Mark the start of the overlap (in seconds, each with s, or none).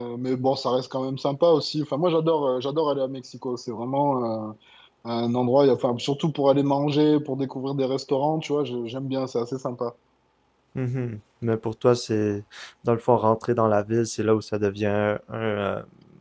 none